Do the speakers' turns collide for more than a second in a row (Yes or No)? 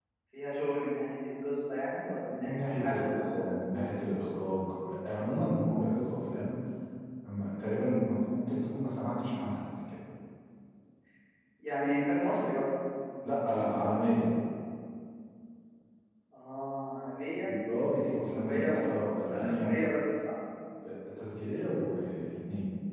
Yes